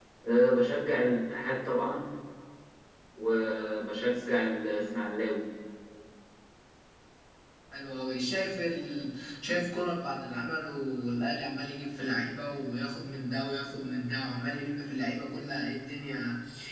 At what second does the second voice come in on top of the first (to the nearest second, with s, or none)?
none